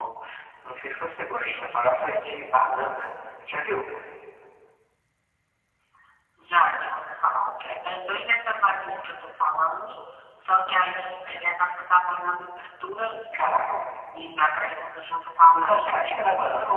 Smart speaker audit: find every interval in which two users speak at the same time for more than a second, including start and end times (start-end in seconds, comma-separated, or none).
none